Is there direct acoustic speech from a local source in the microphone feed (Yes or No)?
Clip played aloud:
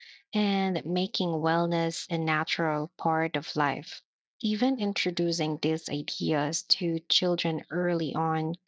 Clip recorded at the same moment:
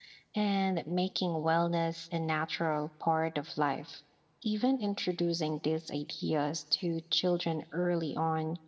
No